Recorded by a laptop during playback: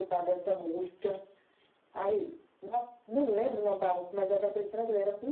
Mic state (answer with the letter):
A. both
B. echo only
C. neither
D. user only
B